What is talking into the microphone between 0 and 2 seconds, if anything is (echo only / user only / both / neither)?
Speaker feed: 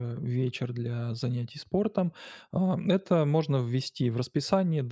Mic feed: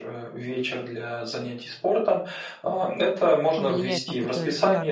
echo only